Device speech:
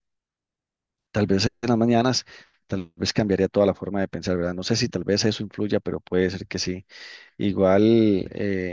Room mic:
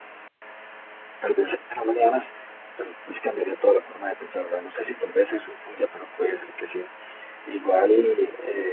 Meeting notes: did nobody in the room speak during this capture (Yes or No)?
Yes